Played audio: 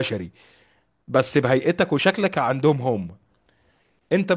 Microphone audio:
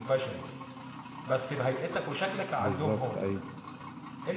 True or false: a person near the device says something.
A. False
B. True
B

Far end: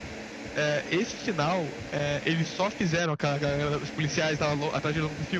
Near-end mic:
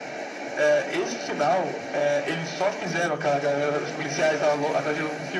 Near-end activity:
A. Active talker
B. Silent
A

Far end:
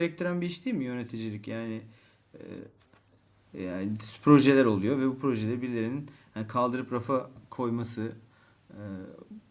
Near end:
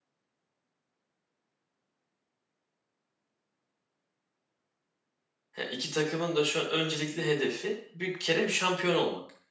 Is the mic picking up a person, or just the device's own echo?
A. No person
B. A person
B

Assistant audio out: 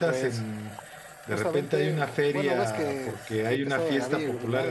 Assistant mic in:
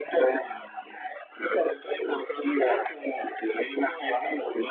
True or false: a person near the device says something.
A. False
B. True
A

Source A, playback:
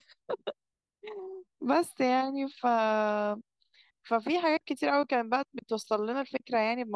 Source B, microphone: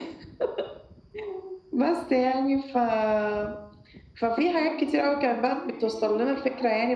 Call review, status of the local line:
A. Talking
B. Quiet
A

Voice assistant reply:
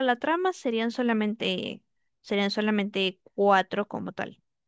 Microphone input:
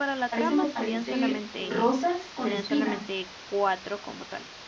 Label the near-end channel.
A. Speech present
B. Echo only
A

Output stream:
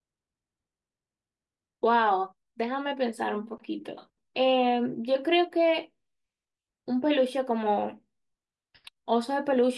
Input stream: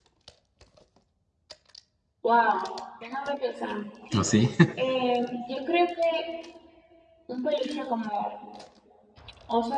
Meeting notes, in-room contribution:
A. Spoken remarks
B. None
A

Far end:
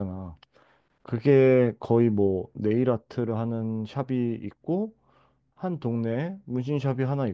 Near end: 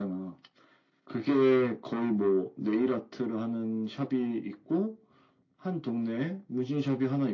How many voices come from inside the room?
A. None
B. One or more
A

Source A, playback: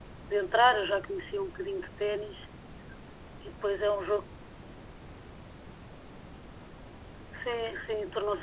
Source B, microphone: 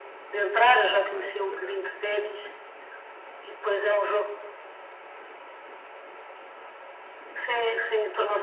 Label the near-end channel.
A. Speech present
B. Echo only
A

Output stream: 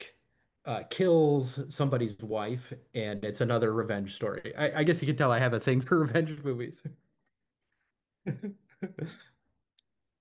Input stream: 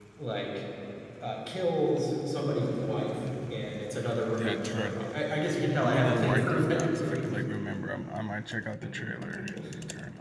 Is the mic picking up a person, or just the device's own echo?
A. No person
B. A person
B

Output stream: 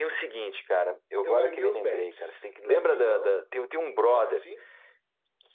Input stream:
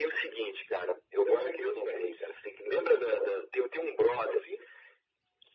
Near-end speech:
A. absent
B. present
A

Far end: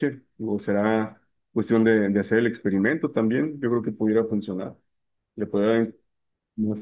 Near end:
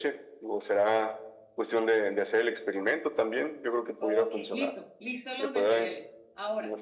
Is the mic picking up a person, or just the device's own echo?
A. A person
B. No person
A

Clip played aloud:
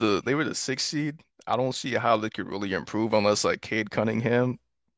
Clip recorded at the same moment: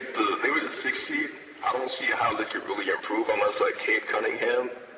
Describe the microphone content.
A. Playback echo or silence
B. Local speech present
A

